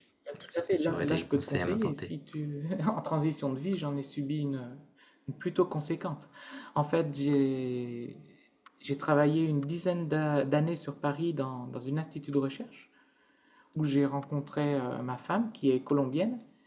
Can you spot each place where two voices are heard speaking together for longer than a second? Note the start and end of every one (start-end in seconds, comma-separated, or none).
0.6-2.1